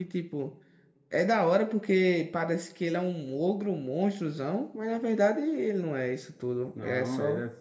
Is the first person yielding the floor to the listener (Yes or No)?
Yes